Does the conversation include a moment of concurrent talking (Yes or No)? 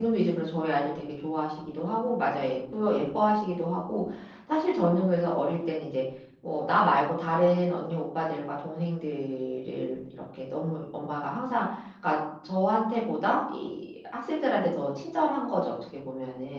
No